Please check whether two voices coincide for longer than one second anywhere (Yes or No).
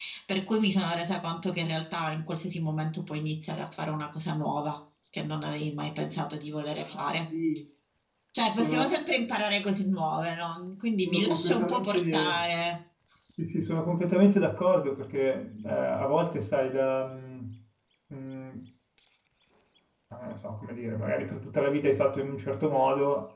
Yes